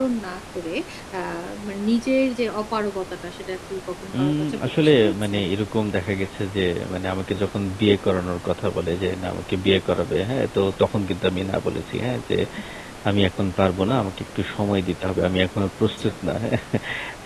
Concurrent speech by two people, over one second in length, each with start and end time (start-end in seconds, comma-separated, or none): 4.2-5.4